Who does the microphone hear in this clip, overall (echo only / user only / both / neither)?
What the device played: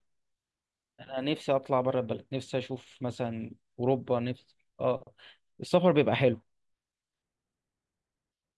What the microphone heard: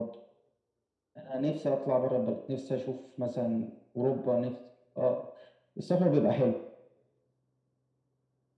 echo only